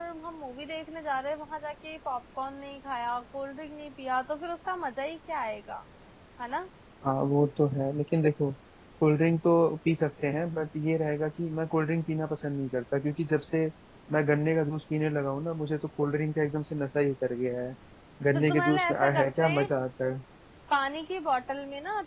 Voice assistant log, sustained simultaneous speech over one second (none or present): present